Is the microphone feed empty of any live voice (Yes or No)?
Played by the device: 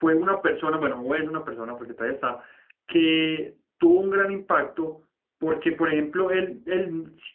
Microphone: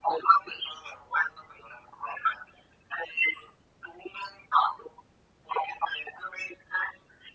Yes